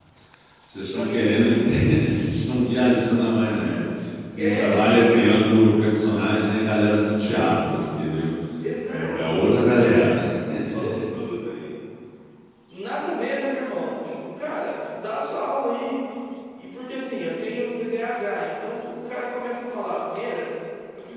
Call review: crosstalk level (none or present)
present